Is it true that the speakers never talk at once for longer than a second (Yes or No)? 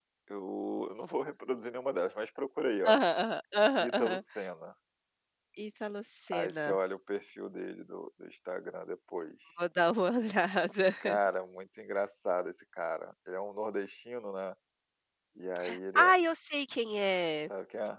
Yes